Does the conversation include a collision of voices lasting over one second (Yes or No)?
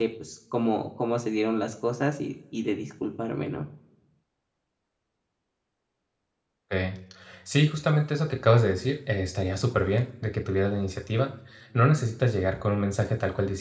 No